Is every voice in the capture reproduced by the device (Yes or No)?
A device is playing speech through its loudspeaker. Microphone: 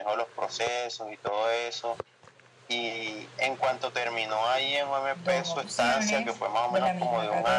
No